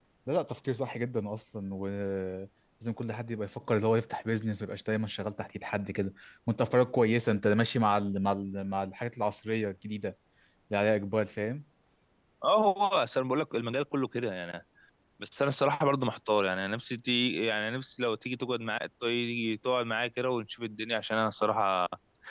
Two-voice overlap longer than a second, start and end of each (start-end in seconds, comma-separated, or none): none